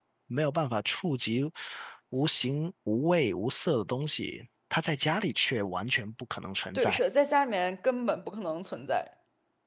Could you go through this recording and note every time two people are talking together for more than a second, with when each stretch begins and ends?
none

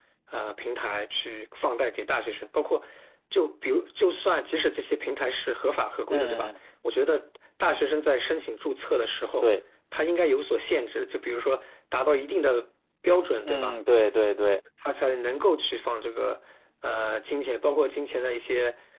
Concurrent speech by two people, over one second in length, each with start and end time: none

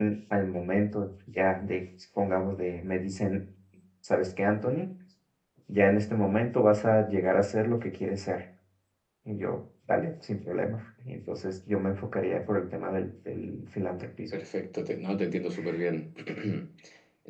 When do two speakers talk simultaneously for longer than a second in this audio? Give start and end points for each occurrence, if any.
none

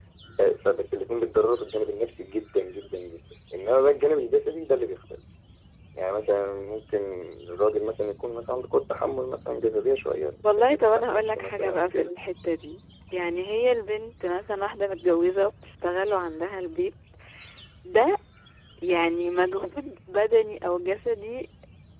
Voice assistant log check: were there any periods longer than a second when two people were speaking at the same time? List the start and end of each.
10.4-12.1

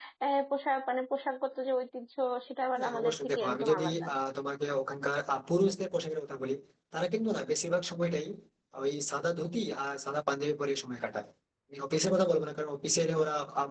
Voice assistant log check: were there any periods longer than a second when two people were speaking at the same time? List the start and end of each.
2.8-4.0

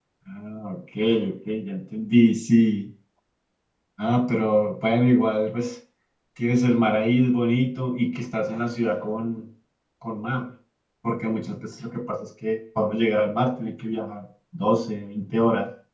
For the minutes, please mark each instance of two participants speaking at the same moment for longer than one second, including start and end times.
none

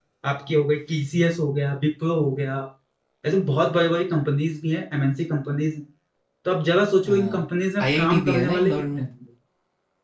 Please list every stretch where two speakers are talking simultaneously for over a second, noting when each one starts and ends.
7.8-9.0

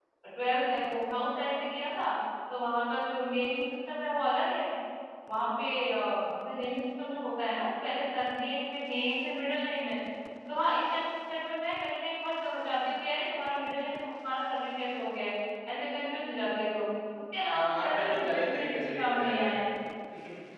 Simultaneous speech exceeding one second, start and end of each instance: 17.5-19.6

